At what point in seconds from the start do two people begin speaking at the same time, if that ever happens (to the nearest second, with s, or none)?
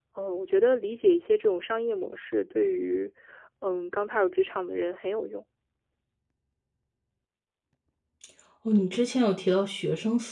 none